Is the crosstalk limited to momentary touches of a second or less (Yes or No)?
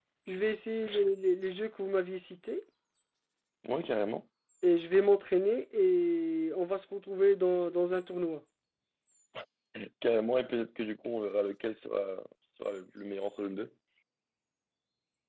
Yes